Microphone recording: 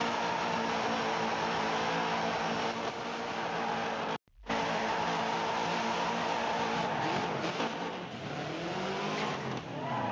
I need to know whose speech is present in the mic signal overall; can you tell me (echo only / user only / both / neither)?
neither